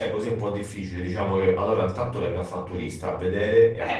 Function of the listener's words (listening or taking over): taking over